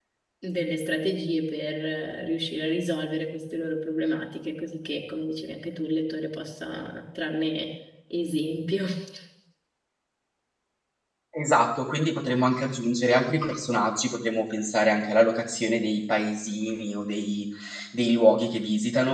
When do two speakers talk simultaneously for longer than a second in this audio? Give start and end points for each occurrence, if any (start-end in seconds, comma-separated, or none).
none